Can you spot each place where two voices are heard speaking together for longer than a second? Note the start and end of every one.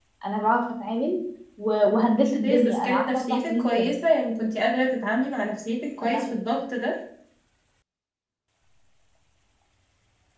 1.9-3.9

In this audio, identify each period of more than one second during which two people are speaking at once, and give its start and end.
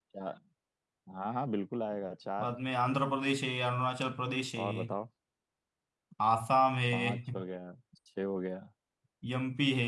none

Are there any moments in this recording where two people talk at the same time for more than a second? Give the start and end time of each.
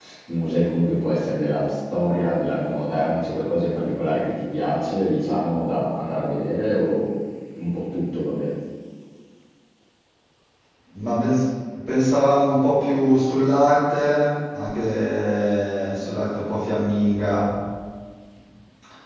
none

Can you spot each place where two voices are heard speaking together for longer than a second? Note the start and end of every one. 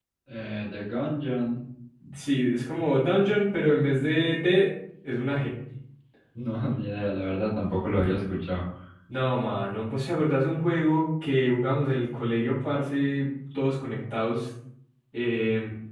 none

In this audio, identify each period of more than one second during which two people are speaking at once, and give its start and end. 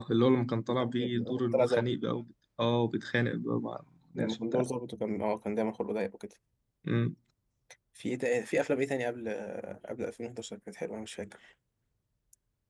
0.7-1.9

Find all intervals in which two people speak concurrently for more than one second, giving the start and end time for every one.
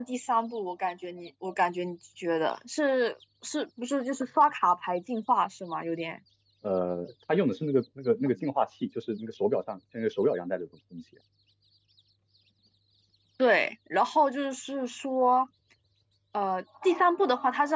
none

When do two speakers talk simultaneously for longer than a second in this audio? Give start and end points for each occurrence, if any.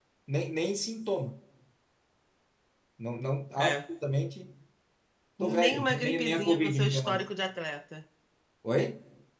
5.4-7.3

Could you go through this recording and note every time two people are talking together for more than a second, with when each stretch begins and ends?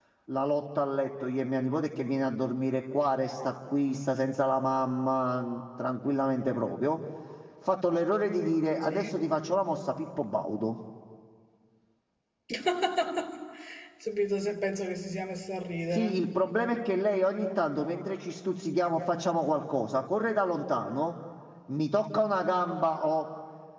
none

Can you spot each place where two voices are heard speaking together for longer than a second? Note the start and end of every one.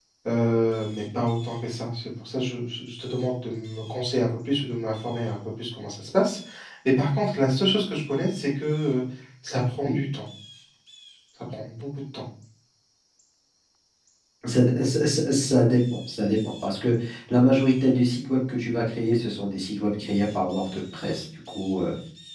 none

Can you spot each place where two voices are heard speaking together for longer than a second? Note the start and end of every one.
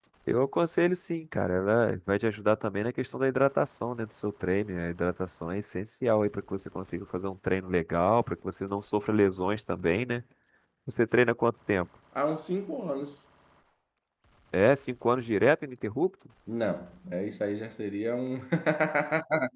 none

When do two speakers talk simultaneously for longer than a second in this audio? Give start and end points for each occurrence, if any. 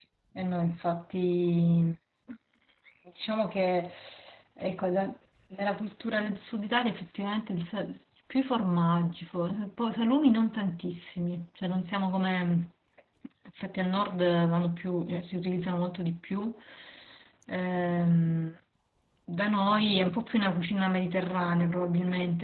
none

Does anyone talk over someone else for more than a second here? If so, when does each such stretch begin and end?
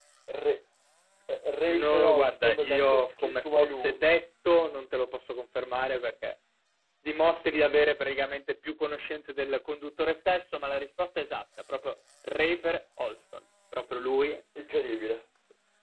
1.7-4.0

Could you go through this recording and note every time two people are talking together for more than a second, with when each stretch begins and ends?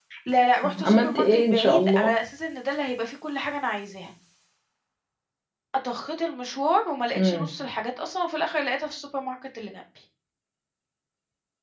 0.6-2.1

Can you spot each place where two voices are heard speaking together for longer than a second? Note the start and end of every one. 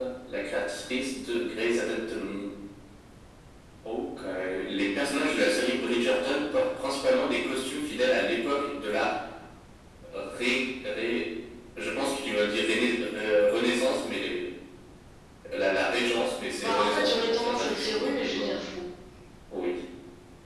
16.6-18.6

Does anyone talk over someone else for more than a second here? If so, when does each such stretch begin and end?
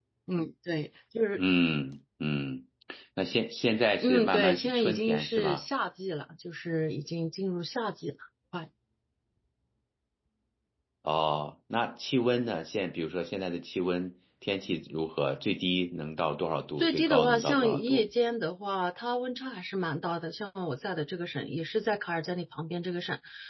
4.0-5.6, 16.8-18.1

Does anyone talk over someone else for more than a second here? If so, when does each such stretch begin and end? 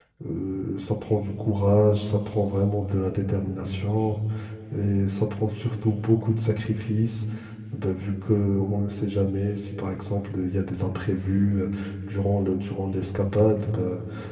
none

